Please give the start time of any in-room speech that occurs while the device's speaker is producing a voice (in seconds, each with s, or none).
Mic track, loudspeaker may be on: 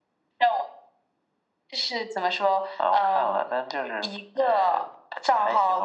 none